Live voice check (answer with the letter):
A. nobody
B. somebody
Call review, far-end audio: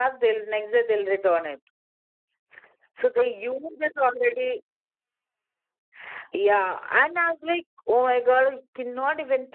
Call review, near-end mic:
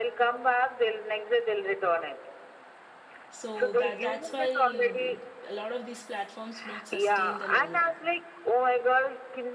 B